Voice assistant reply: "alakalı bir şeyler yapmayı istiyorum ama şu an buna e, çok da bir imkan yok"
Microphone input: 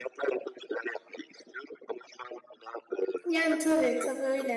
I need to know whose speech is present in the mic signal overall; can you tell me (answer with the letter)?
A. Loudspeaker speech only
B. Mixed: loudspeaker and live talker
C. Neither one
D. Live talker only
B